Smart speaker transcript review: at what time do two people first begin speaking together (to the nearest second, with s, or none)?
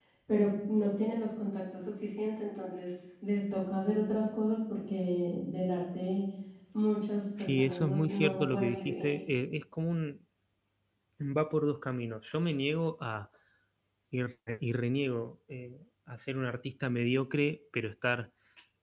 7 s